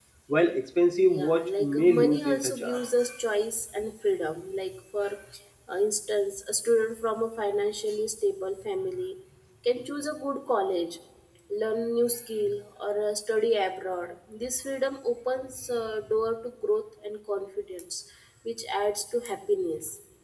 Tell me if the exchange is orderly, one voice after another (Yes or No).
No